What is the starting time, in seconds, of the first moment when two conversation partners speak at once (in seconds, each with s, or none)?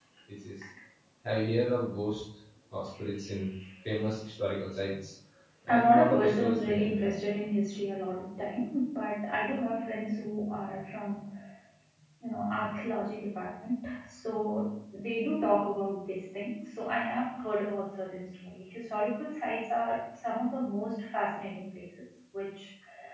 5.7 s